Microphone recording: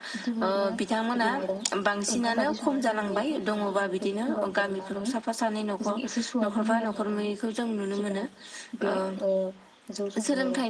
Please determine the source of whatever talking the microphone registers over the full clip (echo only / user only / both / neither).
both